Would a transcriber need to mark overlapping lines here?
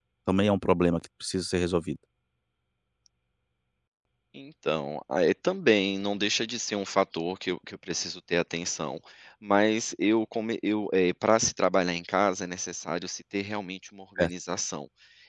No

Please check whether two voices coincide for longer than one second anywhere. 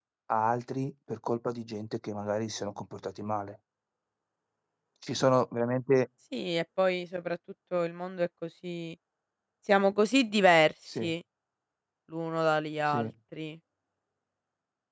No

